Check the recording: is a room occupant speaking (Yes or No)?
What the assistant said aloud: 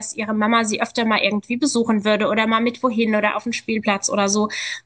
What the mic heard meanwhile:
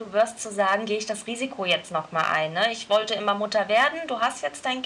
Yes